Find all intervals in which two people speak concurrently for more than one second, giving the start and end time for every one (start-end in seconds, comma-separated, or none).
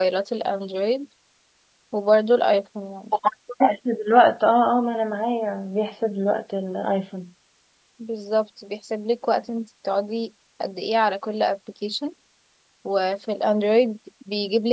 none